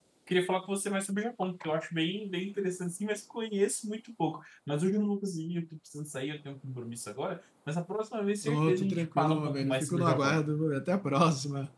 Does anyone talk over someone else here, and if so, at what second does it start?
8 s

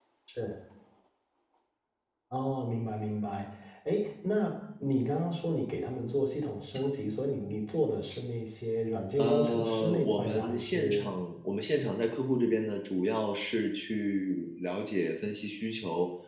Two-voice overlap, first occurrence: 9 s

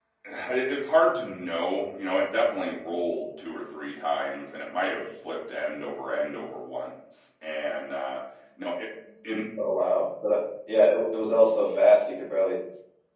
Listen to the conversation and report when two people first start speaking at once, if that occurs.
none

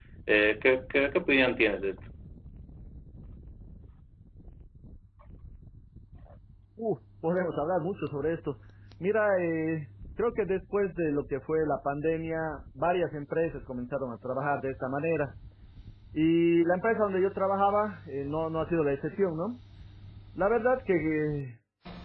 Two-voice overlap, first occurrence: none

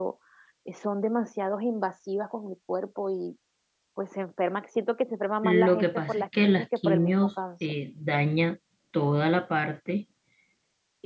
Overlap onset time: 5 s

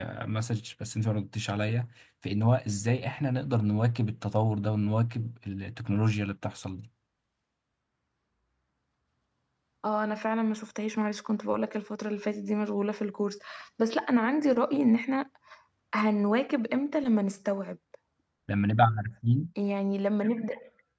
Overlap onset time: none

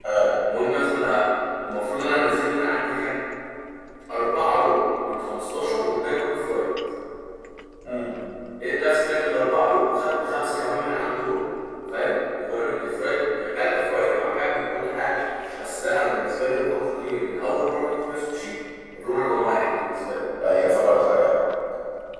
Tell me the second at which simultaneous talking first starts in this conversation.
none

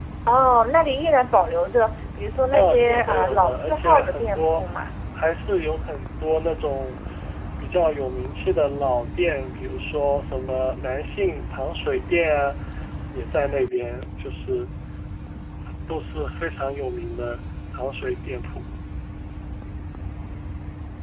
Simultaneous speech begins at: 3 s

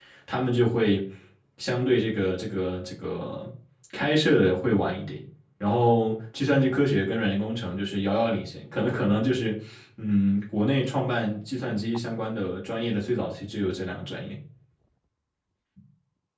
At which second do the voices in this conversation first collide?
none

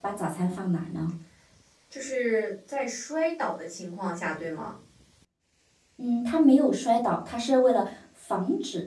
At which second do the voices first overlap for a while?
none

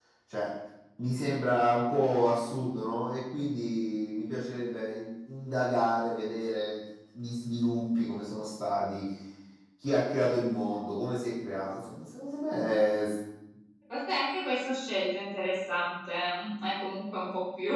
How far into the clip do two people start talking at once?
none

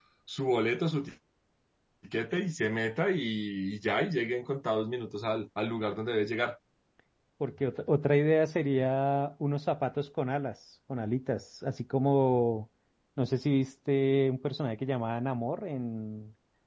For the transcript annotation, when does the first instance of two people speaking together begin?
none

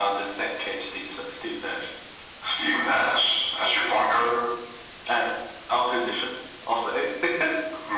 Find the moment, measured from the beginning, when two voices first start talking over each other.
none

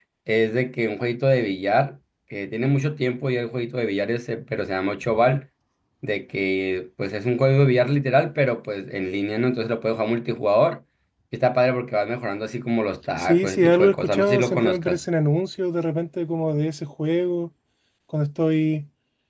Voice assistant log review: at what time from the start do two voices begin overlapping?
13 s

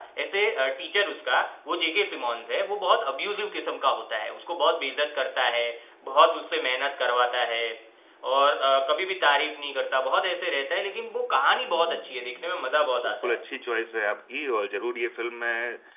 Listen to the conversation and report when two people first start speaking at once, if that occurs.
12 s

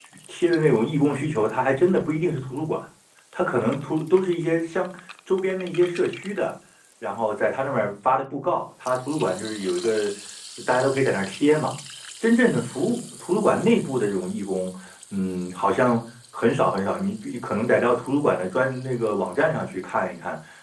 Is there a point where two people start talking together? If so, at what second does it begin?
none

